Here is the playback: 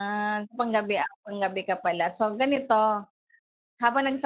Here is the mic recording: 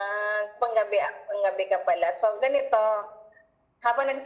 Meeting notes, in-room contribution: none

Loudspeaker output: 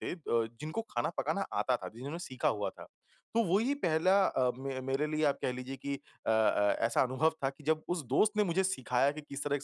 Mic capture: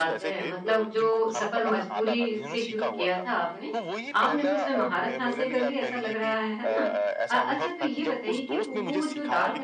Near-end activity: present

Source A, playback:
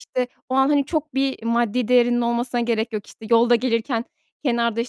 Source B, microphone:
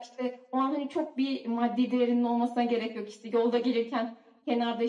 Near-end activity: none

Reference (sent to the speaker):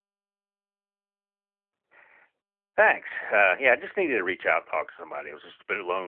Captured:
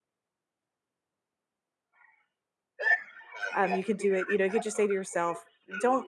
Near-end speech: present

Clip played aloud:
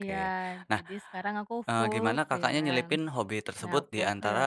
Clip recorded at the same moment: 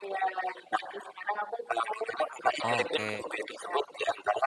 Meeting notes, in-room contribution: present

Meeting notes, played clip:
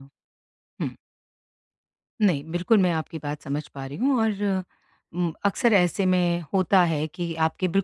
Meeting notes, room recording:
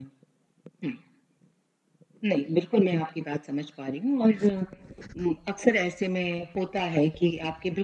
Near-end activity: none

